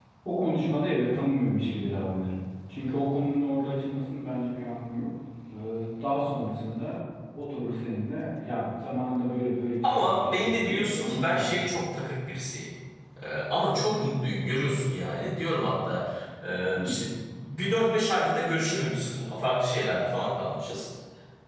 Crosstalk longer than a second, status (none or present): present